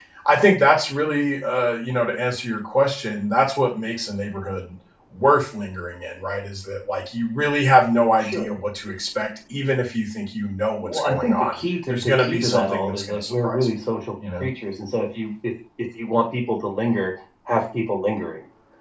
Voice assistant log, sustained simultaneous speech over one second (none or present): present